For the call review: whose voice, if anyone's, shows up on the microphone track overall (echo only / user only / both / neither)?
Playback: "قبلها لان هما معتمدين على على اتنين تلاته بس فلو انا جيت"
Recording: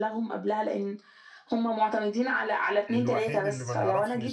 both